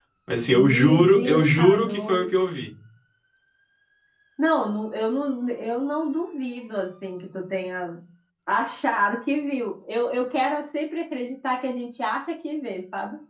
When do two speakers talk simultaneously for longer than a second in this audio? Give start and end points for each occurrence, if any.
0.5-2.4

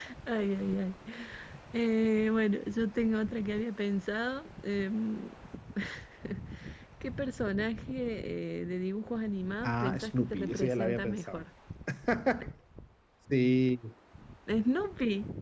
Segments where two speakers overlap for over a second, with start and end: 9.6-11.4

